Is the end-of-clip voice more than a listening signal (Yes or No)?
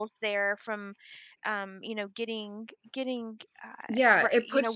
Yes